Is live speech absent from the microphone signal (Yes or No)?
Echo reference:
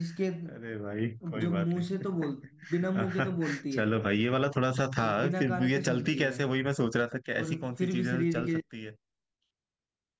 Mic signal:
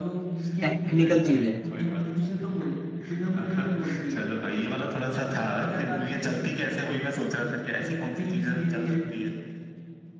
No